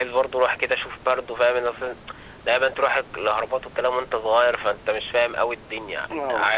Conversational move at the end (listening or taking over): taking over